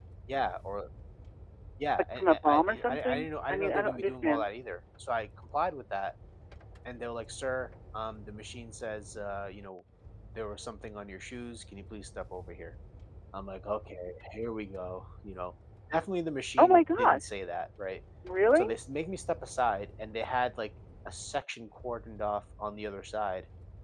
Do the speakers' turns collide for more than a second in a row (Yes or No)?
Yes